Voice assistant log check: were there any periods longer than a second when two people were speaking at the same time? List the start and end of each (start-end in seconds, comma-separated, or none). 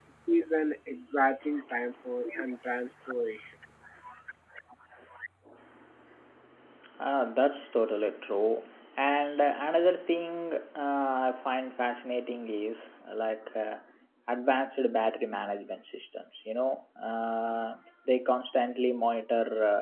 none